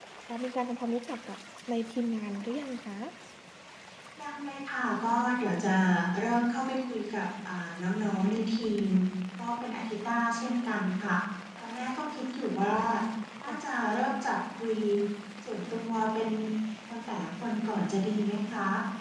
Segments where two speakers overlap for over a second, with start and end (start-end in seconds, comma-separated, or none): none